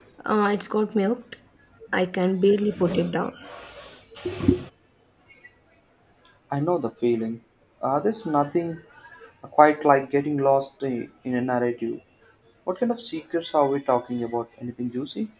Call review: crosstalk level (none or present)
none